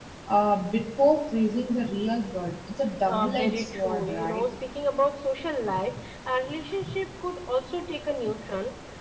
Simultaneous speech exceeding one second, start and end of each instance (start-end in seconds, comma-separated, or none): 3.1-4.4